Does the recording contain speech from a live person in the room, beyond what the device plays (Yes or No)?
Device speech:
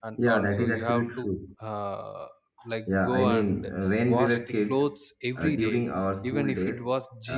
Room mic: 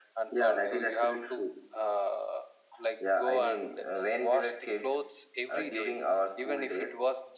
No